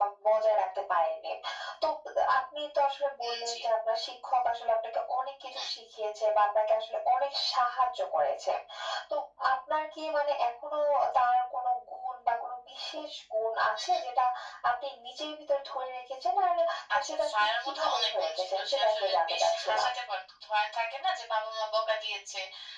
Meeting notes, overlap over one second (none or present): present